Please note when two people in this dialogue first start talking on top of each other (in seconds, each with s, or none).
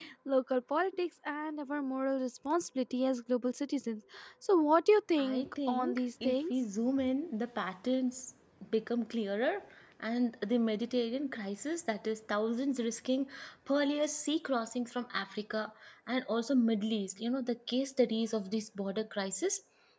5.2 s